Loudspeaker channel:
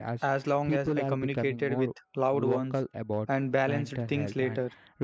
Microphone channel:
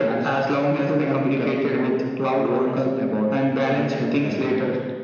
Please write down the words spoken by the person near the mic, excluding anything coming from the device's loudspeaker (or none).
none